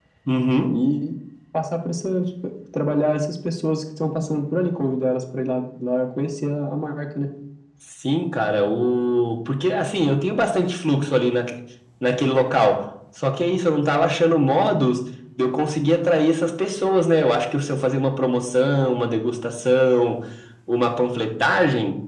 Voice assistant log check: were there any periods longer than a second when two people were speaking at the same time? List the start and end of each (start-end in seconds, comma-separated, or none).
none